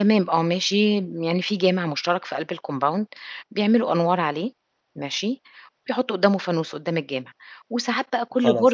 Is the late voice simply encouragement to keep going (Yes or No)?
Yes